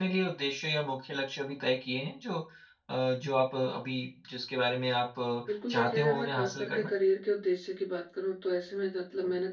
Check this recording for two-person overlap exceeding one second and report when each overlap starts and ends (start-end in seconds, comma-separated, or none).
5.5-6.9